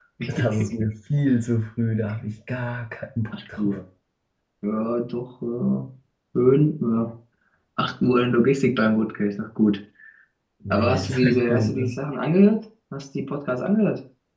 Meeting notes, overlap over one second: present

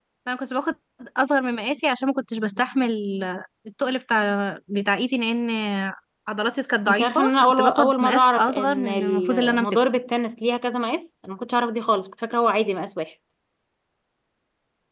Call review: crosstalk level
present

